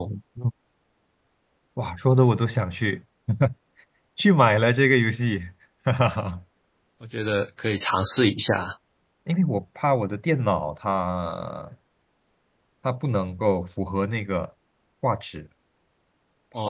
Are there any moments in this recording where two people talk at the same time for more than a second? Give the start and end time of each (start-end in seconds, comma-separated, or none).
none